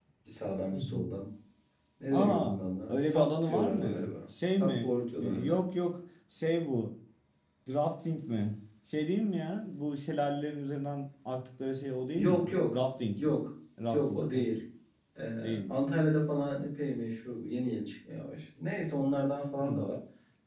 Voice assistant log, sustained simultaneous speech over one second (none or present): present